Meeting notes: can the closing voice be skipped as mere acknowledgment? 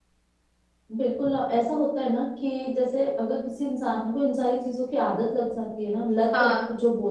Yes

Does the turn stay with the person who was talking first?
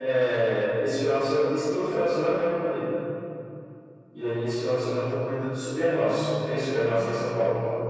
No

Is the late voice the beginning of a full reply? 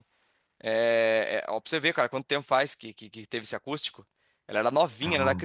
No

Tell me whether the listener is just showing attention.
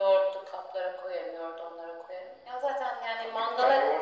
No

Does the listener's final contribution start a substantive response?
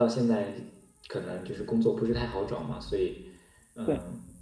No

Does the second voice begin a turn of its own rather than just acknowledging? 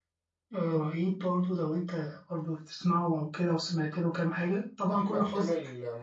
Yes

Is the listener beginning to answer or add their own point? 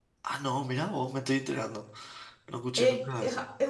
Yes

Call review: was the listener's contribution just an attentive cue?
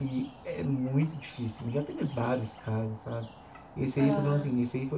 Yes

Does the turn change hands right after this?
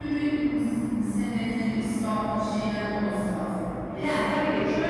Yes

